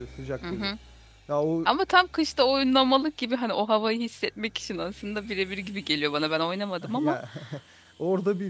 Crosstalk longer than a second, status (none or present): none